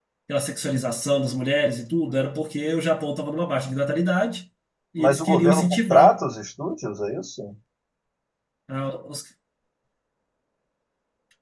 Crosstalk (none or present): present